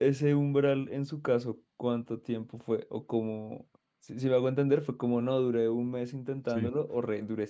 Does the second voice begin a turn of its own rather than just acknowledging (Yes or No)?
No